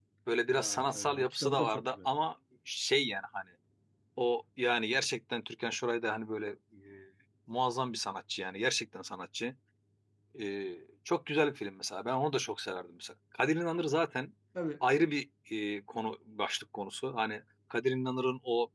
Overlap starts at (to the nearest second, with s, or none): 1 s